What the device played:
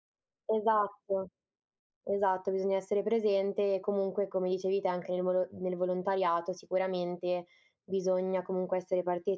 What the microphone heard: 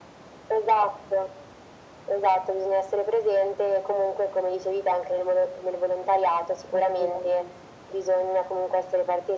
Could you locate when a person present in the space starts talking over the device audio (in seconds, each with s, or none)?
6.7 s